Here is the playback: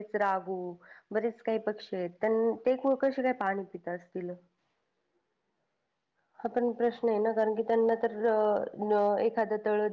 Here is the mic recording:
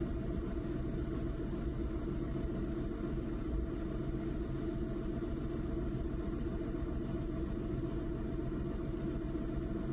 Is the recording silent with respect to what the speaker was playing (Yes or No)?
Yes